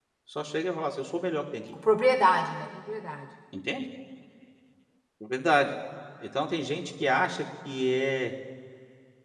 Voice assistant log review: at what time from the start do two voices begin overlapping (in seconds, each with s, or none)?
none